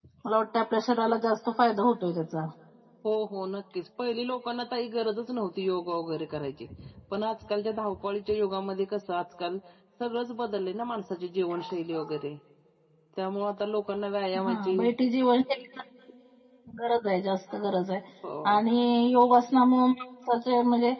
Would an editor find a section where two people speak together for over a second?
No

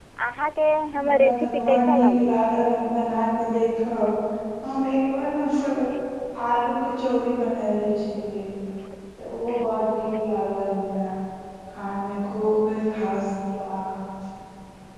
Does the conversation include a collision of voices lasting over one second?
Yes, from 1.0 s

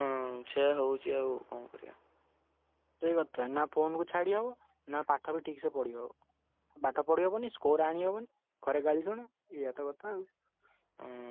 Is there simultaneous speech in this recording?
No

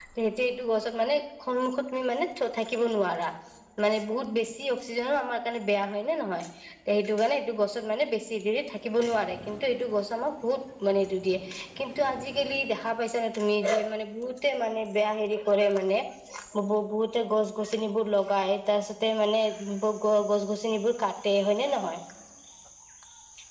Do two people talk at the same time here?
No

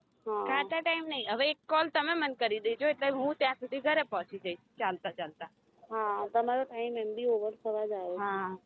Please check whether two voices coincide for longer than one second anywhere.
No

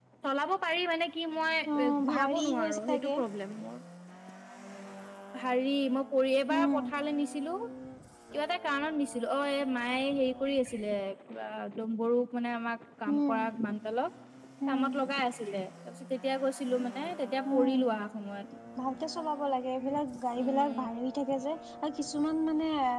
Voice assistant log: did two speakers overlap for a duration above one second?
Yes, from 1.8 s

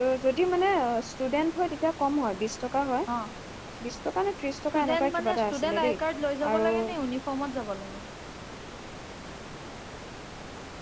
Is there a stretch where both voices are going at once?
Yes, from 4.7 s

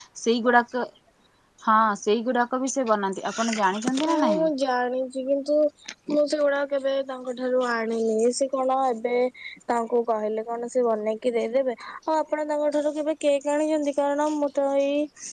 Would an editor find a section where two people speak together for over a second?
Yes, from 3.3 s

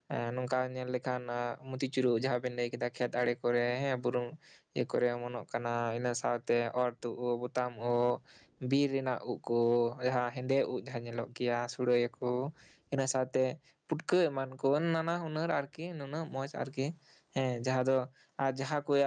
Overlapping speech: No

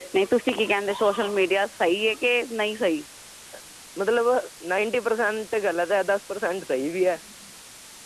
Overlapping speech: No

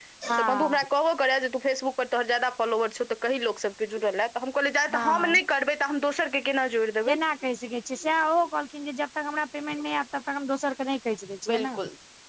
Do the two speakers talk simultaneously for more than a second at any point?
No

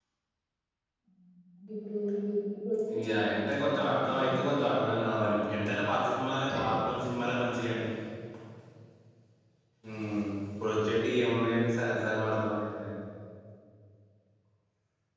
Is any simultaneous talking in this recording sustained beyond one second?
Yes, from 2.9 s

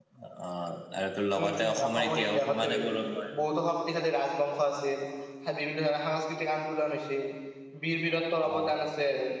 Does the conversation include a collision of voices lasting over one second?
Yes, from 1.4 s

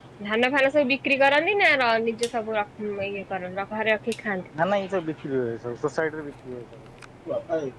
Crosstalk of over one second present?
No

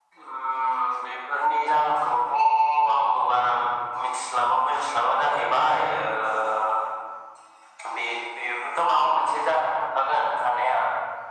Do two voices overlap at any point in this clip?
No

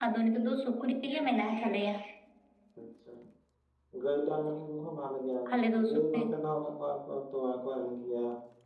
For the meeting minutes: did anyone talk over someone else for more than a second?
No

